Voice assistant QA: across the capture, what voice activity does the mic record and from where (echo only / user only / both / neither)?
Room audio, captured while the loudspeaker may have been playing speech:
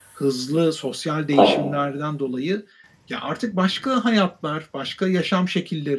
both